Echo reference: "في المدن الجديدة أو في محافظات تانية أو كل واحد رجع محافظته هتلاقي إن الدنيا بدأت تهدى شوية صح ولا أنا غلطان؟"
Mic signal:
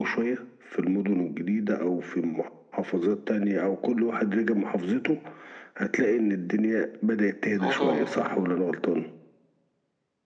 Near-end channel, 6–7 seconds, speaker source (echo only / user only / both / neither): echo only